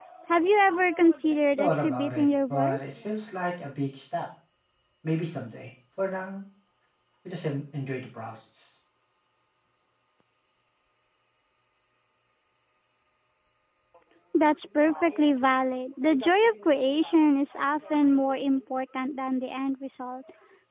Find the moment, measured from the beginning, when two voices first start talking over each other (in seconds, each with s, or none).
1.6 s